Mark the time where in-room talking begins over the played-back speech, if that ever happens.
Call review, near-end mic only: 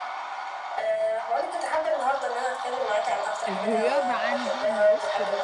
3 s

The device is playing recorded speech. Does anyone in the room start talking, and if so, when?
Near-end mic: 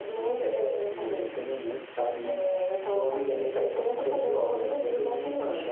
none

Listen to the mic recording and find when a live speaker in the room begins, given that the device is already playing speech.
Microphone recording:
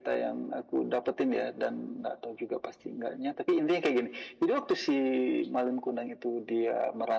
none

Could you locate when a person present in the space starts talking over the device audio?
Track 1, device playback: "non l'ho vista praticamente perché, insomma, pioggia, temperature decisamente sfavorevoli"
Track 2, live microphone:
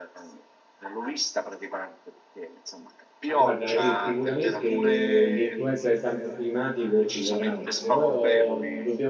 3 s

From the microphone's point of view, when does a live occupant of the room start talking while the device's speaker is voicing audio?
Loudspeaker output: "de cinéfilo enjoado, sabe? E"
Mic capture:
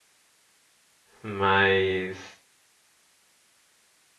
1 s

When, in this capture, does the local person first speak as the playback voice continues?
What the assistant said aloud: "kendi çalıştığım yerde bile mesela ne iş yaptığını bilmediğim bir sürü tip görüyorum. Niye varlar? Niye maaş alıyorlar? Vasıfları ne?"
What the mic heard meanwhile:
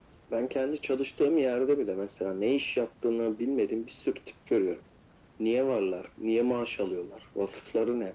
none

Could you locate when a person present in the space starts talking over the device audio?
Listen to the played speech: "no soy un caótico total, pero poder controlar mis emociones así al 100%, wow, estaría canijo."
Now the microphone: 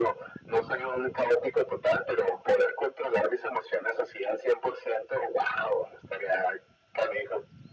none

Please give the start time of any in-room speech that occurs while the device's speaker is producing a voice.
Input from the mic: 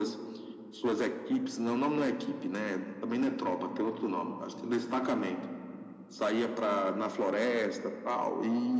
none

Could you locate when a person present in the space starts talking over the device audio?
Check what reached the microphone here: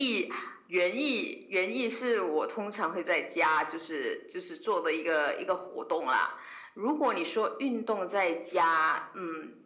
none

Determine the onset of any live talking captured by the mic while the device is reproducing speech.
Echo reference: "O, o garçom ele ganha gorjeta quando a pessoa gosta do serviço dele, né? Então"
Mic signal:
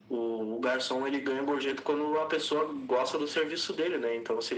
none

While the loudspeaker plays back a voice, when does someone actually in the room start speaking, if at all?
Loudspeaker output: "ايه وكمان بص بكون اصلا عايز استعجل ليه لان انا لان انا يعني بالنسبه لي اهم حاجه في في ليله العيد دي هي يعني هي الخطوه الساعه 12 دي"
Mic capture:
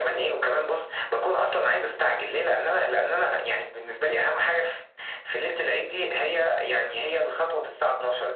none

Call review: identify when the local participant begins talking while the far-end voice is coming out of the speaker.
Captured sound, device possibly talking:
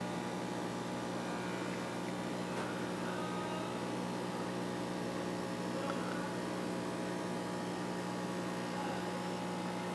none

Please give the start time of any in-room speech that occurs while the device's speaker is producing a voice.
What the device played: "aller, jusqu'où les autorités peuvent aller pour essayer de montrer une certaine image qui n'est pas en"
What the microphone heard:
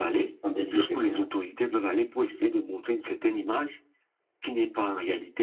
0 s

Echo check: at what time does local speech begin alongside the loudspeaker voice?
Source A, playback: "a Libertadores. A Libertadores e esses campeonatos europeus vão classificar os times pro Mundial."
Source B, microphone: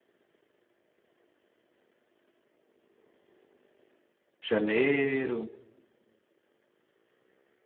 4 s

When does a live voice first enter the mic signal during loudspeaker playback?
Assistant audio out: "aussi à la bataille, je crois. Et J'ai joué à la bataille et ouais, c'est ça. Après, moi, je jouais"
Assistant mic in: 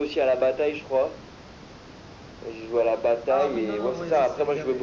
3 s

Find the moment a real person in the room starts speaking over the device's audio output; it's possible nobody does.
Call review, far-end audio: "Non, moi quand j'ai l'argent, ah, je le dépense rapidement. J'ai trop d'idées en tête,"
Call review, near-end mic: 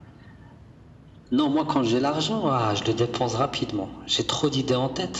none

